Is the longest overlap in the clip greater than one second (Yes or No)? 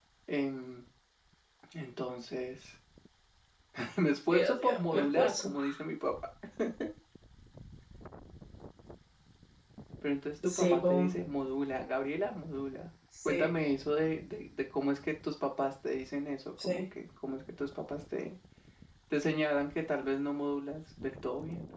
Yes